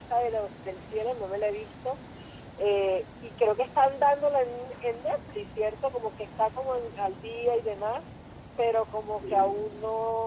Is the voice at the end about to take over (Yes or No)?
No